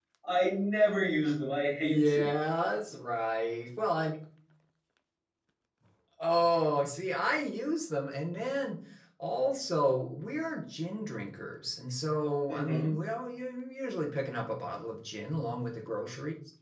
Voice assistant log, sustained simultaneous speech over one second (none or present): none